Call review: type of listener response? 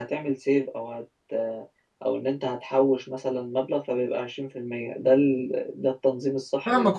taking over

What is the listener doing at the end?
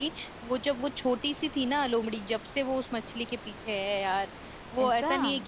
listening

